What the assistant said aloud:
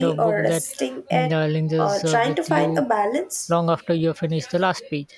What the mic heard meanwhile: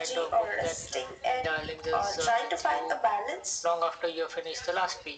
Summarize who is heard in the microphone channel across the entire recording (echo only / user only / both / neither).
echo only